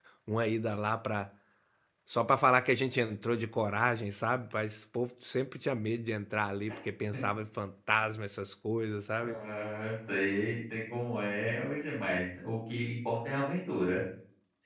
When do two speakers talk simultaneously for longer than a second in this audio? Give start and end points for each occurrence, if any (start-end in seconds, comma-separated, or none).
none